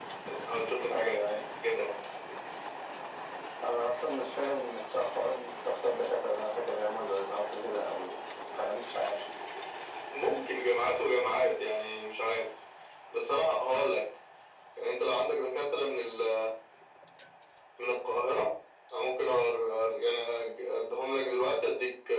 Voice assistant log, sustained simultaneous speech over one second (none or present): none